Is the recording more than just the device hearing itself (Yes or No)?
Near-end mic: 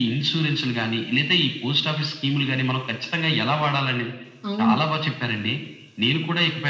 Yes